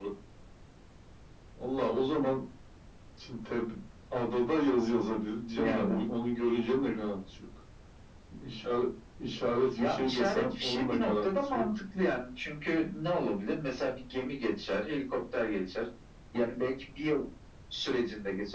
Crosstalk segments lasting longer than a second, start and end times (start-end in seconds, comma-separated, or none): 9.8-11.7